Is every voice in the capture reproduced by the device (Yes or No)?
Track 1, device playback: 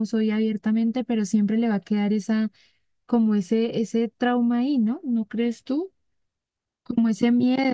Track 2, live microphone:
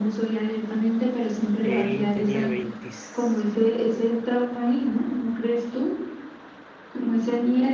No